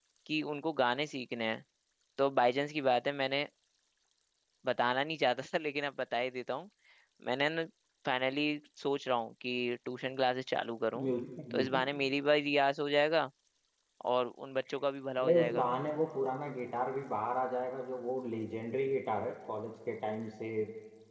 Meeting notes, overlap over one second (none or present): none